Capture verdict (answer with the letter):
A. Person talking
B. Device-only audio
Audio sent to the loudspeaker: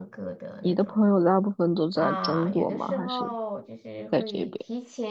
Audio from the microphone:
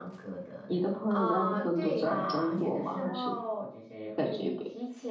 A